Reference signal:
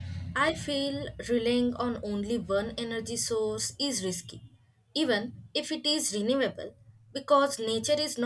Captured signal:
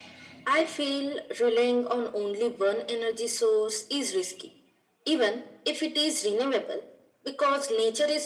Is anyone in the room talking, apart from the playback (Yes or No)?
No